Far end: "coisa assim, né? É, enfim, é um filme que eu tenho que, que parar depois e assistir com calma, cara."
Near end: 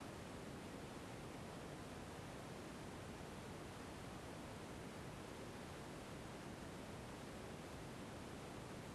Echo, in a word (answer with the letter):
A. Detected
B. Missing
B